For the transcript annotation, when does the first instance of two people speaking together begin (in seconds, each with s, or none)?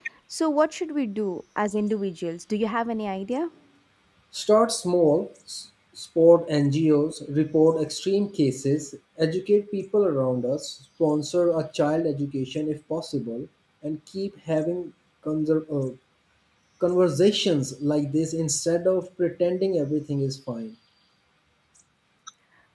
none